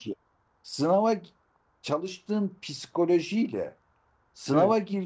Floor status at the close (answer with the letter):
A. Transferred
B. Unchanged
B